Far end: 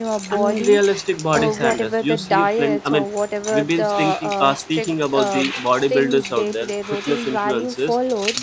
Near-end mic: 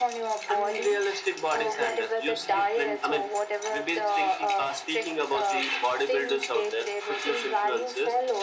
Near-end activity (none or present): none